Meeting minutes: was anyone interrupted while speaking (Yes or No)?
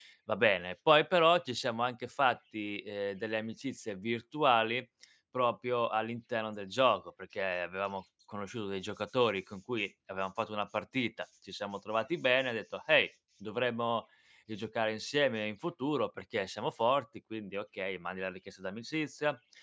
No